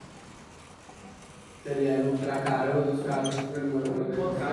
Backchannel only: No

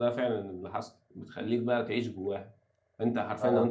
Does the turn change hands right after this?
No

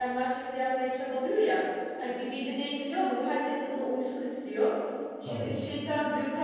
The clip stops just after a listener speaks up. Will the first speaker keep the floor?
Yes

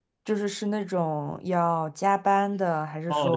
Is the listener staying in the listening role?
No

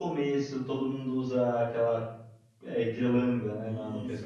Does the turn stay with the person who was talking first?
No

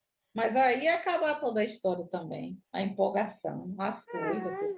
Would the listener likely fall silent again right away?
No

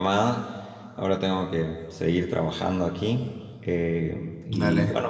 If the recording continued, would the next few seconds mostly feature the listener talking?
No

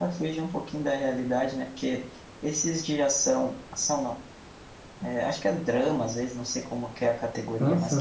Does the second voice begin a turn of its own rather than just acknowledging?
No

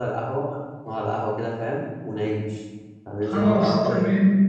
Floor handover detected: Yes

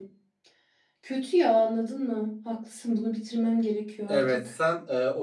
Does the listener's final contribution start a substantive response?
Yes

